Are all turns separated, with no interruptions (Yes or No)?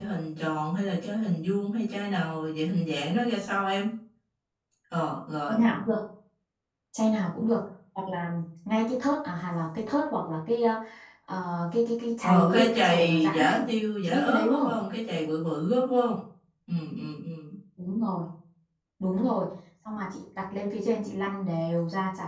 No